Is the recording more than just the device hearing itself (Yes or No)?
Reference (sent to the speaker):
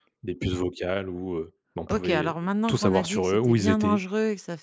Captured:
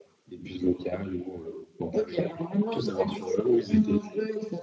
No